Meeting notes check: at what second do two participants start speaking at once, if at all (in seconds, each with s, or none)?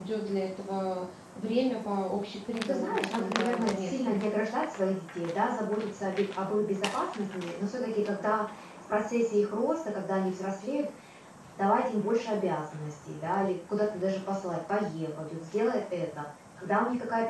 2.6 s